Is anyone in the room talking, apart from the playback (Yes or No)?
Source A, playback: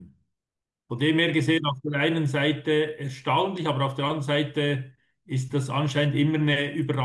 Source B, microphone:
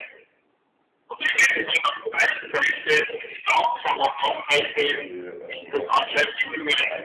Yes